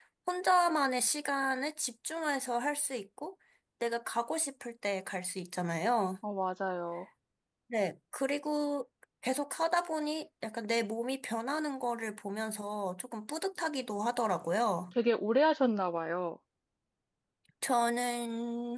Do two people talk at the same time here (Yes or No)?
No